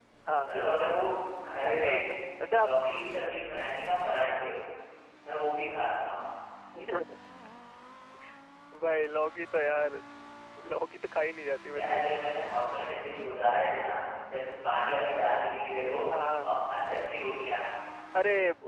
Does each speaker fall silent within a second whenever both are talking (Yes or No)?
Yes